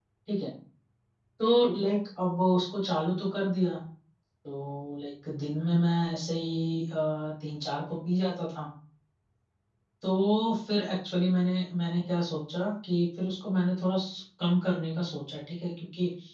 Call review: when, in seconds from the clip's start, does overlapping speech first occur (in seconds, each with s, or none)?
none